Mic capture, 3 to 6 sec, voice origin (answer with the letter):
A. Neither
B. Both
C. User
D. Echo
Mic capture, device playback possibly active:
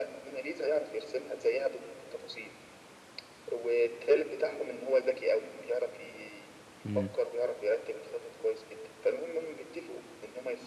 D